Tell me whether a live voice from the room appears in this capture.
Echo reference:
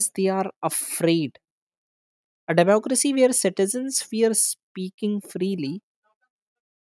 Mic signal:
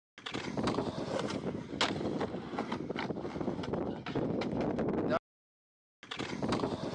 No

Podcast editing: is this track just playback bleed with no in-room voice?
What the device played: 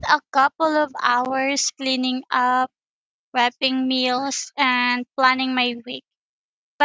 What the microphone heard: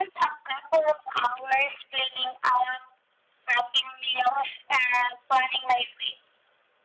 Yes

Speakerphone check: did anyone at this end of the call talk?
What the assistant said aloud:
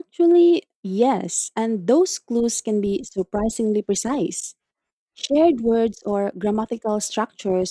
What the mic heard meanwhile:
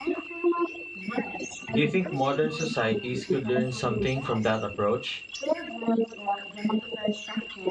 Yes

